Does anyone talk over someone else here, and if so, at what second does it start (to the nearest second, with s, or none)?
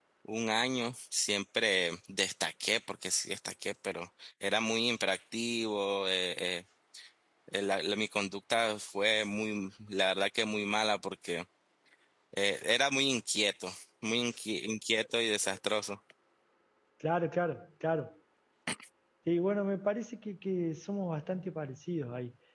none